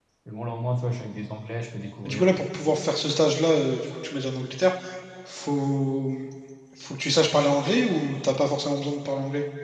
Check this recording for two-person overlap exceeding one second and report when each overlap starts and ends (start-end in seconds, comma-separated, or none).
none